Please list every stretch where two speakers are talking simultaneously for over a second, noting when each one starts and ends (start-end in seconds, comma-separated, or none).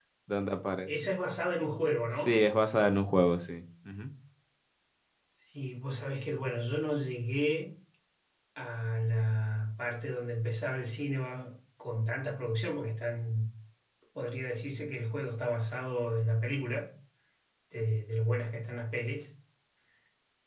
none